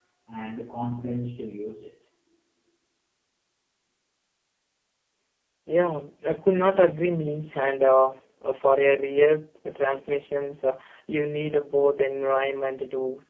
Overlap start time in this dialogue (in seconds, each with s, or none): none